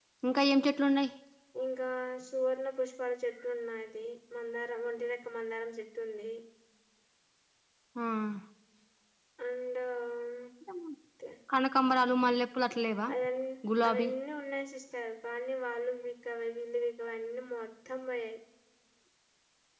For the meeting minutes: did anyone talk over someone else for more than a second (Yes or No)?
No